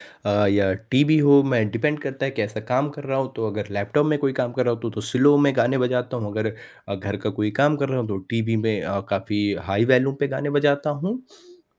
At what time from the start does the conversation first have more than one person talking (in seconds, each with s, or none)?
none